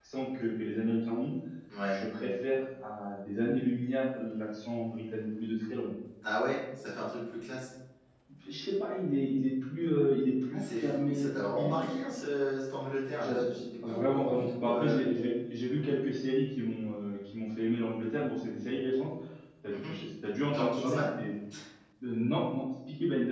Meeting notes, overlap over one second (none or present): present